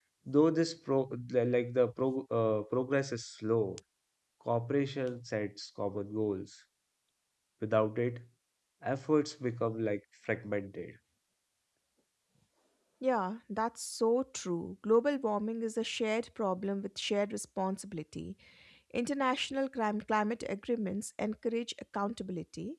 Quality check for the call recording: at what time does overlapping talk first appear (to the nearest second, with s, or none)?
none